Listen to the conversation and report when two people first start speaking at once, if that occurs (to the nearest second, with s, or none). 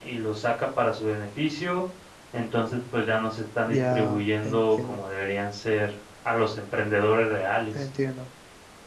4 s